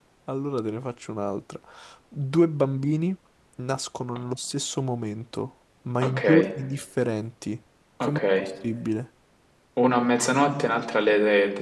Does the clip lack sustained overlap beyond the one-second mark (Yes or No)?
Yes